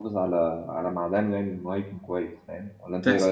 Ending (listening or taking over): taking over